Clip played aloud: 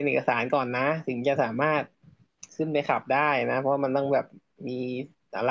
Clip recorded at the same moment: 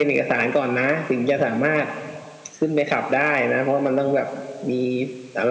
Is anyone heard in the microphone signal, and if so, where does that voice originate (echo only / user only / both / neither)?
echo only